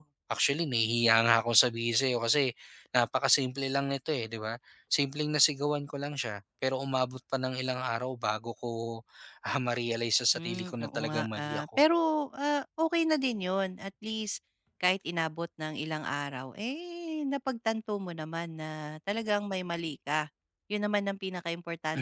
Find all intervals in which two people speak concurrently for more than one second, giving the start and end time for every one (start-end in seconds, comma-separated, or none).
10.4-11.8